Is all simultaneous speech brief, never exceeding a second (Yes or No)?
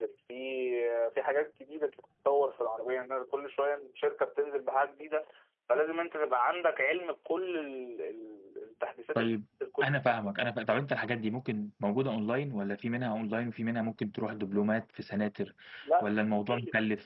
Yes